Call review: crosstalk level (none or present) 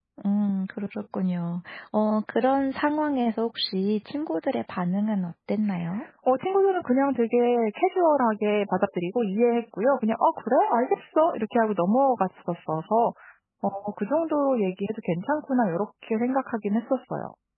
none